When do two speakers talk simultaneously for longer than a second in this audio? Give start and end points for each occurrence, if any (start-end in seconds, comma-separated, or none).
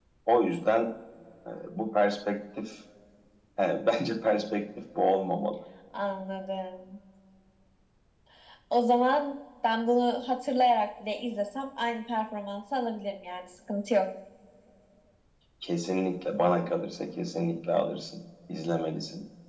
none